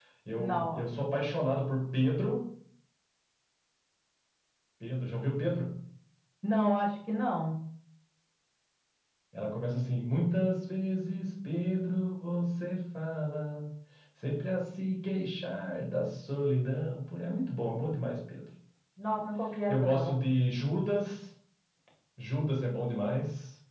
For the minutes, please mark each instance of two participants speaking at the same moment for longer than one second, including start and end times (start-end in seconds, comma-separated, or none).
none